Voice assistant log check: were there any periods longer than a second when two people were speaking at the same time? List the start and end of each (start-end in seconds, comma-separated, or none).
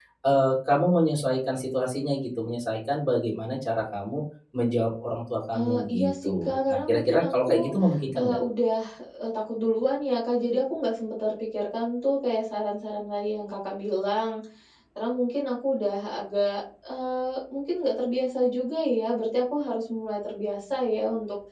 5.5-7.7